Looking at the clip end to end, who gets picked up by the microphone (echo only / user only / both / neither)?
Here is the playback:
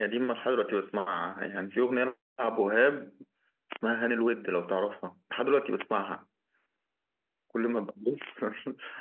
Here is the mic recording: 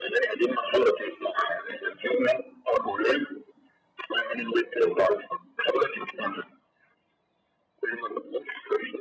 echo only